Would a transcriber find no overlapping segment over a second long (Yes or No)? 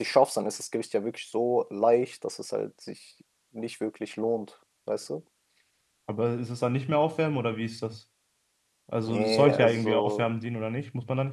No